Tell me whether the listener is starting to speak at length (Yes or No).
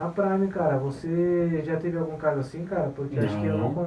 No